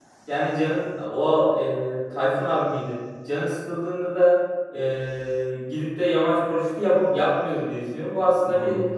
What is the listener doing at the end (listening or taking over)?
listening